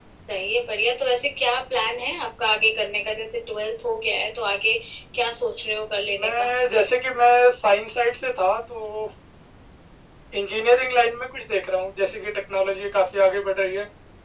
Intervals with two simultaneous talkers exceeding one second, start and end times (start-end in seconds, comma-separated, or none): none